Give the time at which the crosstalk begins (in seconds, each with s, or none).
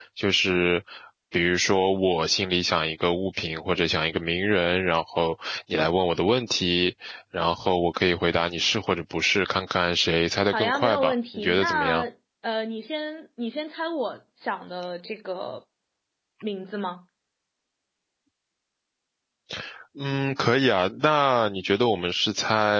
10.5 s